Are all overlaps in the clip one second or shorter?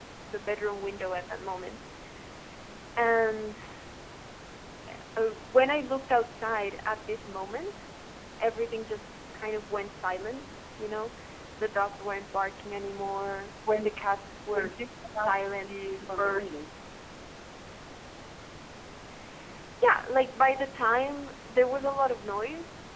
No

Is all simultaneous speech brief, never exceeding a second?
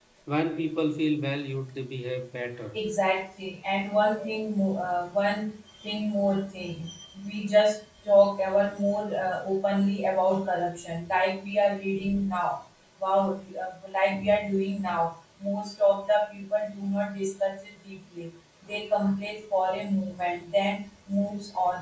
Yes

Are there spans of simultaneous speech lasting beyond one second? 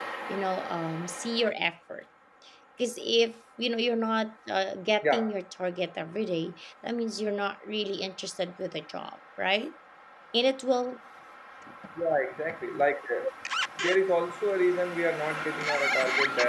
No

